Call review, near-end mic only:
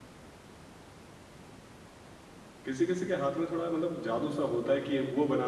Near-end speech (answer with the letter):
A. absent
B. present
B